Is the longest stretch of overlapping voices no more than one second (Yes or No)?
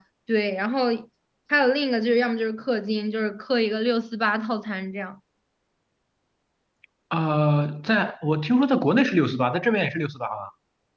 Yes